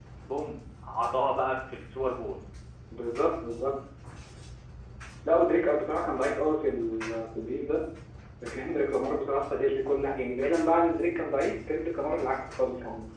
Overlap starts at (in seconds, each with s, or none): none